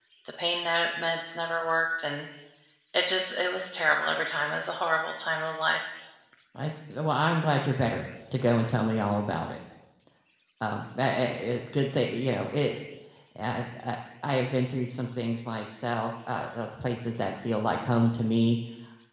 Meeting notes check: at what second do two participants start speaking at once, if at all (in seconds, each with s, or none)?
none